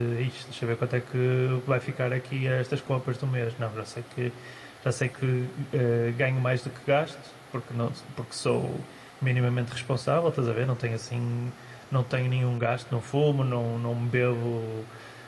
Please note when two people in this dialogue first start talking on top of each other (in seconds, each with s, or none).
none